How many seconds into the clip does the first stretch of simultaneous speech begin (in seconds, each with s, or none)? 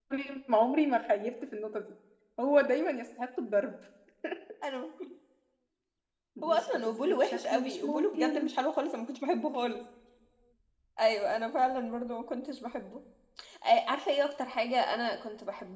6.4 s